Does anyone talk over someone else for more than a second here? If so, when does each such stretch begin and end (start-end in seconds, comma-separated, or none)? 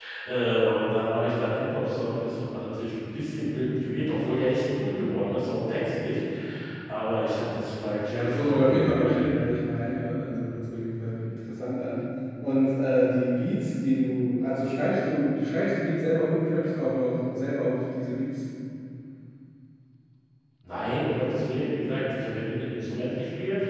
8.1-9.3